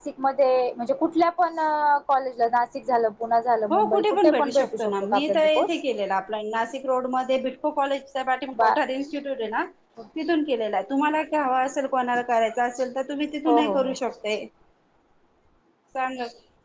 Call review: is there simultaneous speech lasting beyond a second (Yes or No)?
Yes